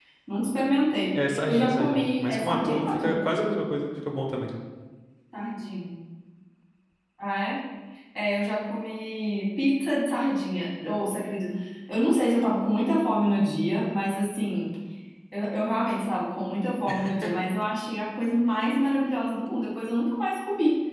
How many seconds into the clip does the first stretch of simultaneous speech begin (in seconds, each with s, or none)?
1.3 s